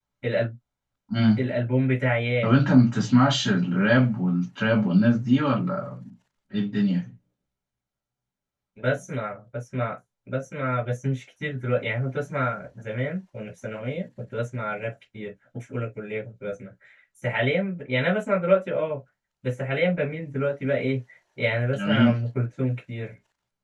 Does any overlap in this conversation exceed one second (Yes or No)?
No